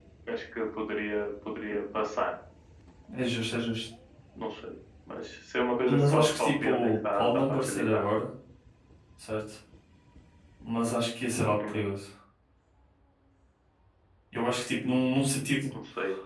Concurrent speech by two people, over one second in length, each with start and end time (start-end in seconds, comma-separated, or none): 5.9-8.3